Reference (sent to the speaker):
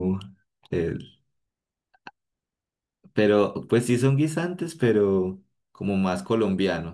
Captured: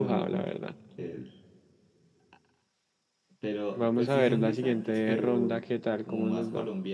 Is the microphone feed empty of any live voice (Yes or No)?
No